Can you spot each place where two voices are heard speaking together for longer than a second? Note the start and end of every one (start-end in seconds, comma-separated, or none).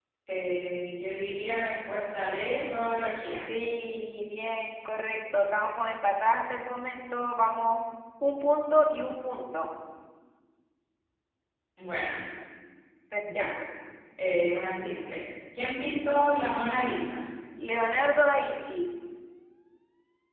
none